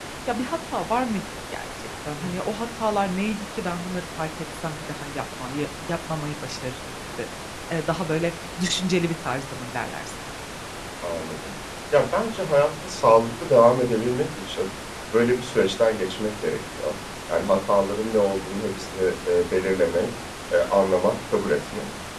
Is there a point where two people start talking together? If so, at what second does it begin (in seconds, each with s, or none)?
none